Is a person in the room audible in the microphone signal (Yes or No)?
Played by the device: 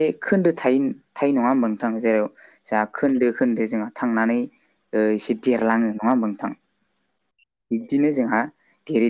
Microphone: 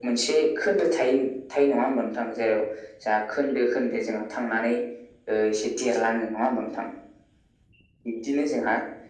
No